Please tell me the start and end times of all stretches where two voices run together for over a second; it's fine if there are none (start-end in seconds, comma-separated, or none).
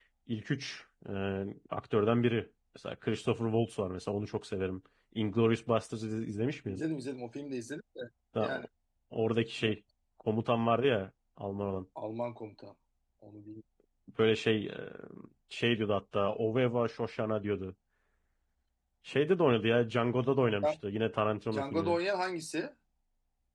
none